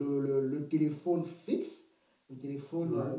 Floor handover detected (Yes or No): No